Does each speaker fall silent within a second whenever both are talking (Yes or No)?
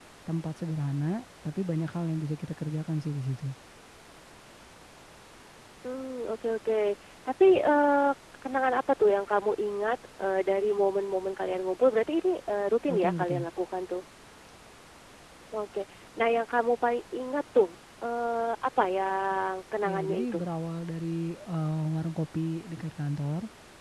Yes